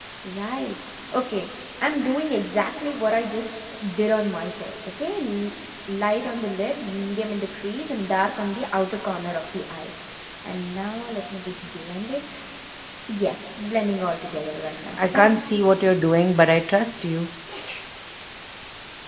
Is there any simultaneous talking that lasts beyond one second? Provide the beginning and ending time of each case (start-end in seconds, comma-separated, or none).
none